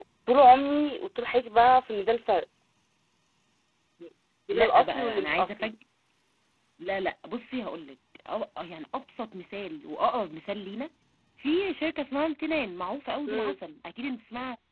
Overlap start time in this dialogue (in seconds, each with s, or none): 4.5 s